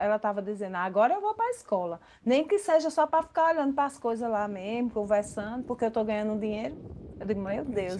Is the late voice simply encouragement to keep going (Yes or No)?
Yes